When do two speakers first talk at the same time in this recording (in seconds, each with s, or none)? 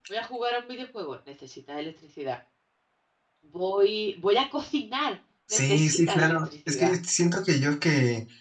5.5 s